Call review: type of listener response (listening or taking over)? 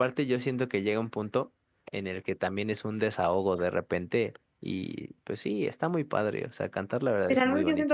taking over